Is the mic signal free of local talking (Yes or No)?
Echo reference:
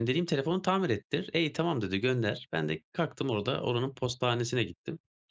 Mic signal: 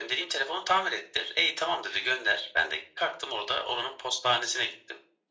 Yes